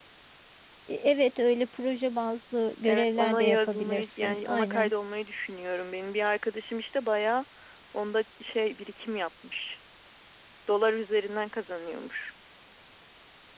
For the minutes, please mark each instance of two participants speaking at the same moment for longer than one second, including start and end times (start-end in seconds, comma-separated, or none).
2.9-4.9